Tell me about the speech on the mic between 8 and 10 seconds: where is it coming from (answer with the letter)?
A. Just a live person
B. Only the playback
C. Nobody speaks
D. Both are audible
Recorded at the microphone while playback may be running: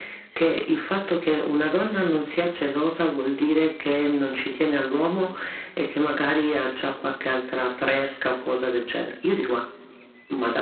B